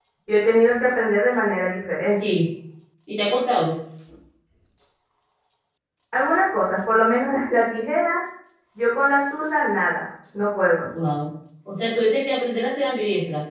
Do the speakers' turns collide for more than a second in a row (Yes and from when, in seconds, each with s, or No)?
No